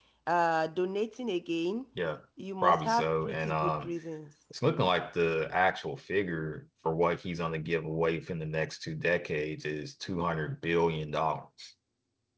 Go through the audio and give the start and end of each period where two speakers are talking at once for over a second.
2.6-3.9

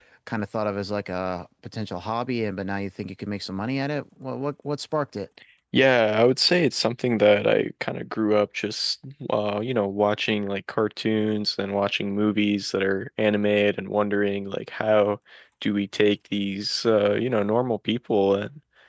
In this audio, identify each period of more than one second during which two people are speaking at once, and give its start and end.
none

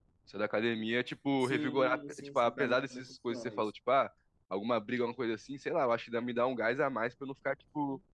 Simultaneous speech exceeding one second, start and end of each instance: 1.4-3.7

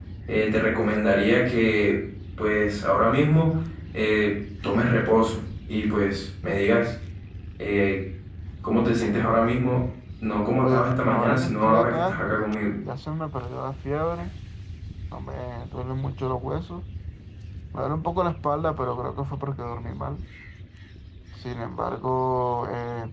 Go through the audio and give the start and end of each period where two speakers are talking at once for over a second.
10.6-12.2

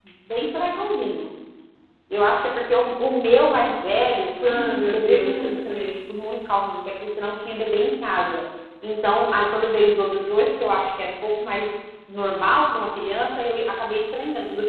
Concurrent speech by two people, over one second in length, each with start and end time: 4.4-6.0

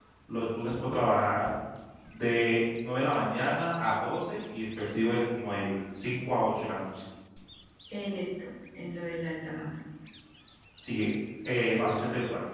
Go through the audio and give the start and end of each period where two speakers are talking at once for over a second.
none

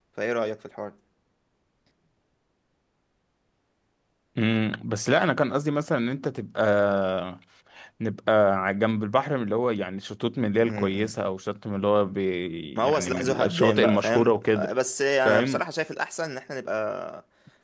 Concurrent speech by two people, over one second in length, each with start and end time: 12.8-14.7

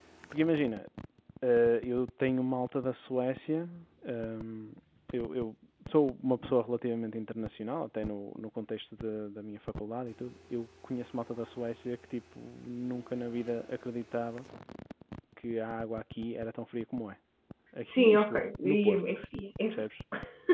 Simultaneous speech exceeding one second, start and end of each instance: 17.8-19.1

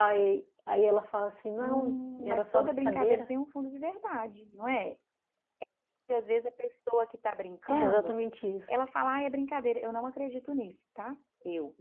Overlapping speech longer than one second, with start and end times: 1.6-3.2

